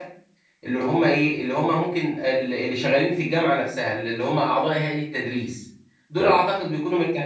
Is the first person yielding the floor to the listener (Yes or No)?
No